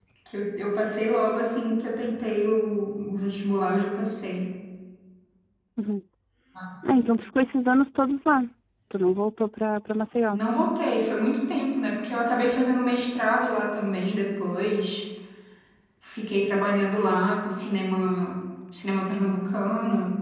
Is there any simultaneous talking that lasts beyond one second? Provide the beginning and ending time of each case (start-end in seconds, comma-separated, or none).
none